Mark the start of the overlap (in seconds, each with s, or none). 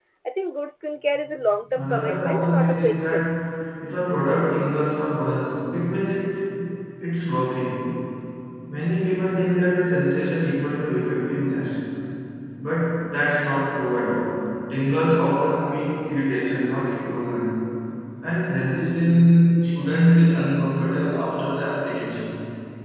1.8 s